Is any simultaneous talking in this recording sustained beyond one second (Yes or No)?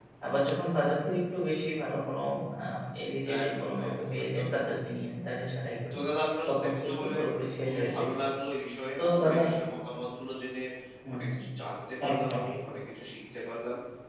Yes